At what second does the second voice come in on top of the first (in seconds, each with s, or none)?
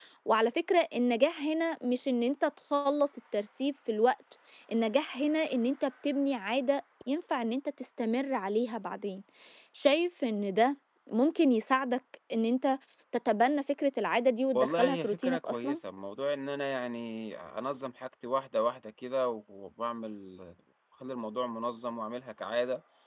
14.5 s